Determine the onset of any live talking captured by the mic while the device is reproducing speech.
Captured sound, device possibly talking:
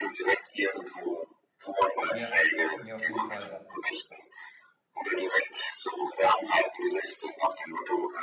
2 s

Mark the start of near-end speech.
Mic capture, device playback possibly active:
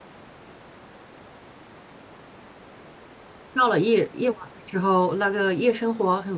4 s

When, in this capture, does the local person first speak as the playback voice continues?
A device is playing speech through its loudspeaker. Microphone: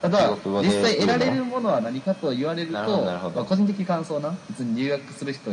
none

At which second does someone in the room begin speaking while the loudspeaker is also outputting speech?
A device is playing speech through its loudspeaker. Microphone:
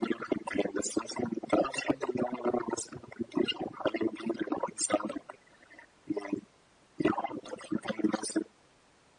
none

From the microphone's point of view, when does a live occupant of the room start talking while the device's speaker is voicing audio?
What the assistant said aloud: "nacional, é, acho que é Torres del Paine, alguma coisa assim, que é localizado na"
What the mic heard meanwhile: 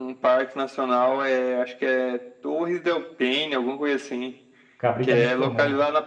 5 s

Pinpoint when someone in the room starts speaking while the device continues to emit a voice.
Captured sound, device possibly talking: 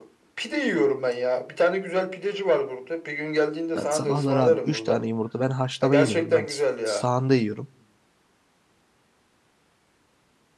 4 s

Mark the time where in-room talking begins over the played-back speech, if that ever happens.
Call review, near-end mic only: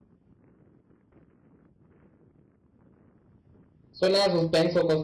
4 s

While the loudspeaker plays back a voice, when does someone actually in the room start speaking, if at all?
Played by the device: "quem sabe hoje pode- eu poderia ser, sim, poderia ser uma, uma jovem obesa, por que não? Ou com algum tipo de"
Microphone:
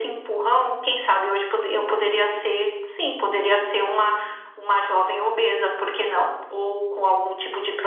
2 s

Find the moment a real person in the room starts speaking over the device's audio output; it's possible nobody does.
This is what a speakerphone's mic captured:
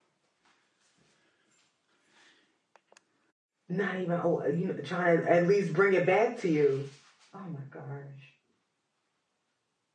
4 s

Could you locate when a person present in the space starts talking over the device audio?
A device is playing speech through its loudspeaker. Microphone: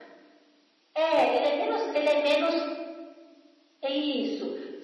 none

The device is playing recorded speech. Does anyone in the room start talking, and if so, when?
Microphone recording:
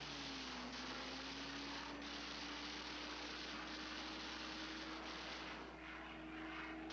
none

